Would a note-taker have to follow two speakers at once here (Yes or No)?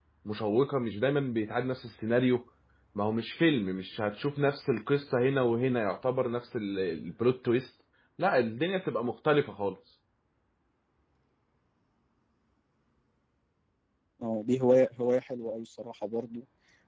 No